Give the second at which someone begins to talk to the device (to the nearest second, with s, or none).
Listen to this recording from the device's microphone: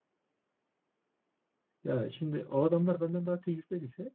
2 s